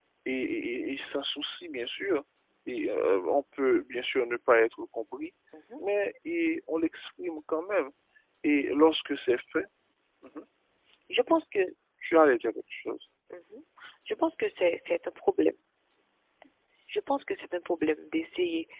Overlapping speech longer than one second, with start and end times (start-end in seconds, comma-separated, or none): none